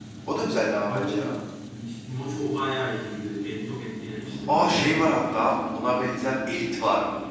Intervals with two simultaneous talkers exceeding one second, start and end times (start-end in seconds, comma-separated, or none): none